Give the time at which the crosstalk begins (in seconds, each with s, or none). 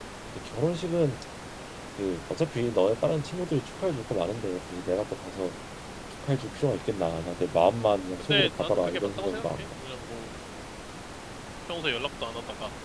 8.2 s